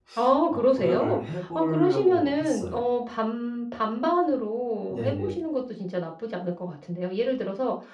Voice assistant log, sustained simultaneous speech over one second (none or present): present